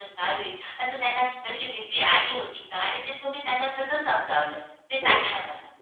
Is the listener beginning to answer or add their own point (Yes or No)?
Yes